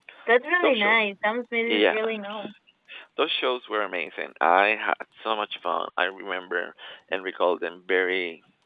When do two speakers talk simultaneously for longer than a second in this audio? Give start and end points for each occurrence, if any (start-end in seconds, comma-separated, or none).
none